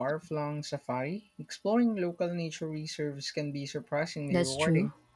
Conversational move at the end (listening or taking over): taking over